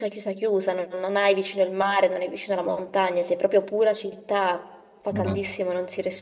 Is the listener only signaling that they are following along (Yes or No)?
Yes